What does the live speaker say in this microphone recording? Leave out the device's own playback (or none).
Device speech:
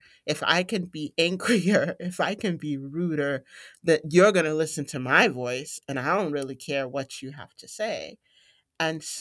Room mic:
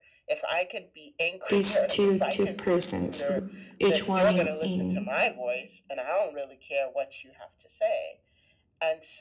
these two two persons who- each one in in